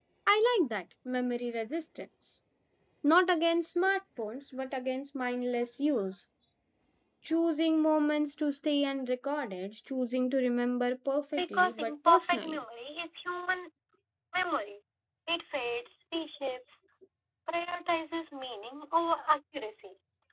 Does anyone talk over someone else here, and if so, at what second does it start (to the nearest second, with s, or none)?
11 s